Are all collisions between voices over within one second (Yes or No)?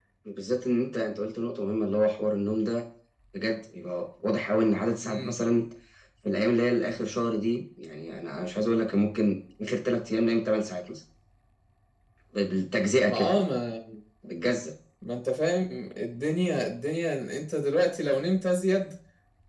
Yes